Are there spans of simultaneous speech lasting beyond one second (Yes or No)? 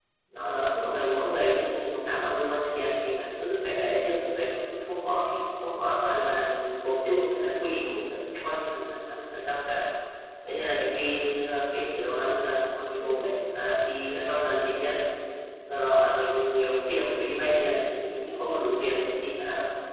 Yes